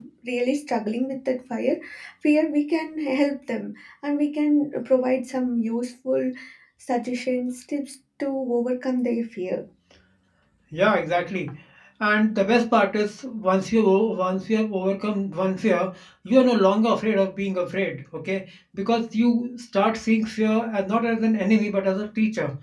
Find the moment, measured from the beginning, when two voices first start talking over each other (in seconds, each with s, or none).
none